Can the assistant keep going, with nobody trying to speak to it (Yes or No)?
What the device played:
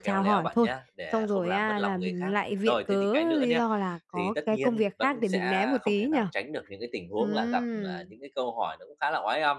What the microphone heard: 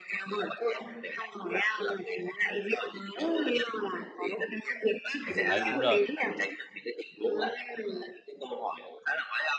No